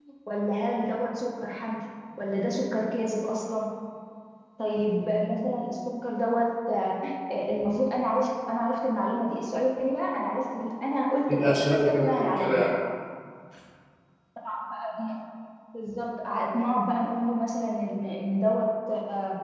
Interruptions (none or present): present